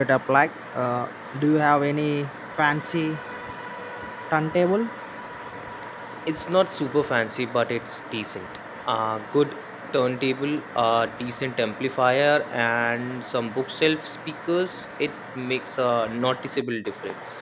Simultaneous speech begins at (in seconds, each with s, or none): none